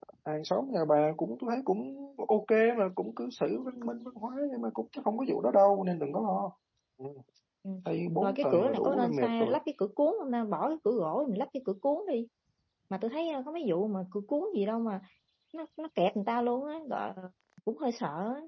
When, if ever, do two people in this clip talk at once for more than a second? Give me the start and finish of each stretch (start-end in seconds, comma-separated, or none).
8.2-9.6